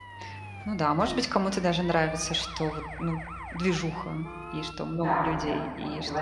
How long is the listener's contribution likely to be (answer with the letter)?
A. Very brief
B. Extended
B